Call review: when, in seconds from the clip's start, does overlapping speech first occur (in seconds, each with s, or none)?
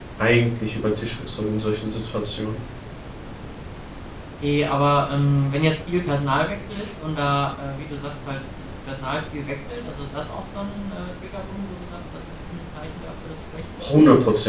none